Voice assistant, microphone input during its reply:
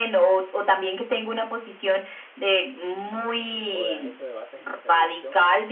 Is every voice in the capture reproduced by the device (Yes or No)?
No